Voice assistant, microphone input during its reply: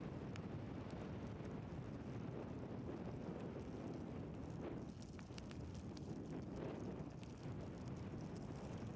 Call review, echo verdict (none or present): none